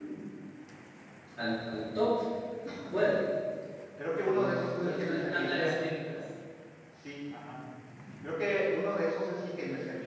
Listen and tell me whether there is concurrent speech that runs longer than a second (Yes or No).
Yes